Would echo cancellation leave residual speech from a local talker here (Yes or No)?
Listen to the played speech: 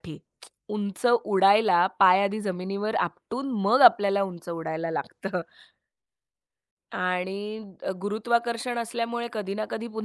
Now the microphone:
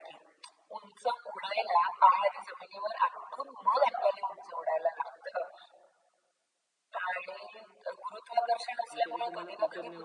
Yes